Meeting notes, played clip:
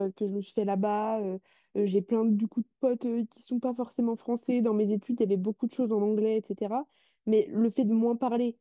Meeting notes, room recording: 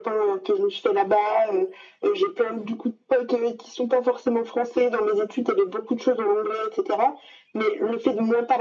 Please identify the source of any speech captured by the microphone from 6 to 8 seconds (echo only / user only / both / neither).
echo only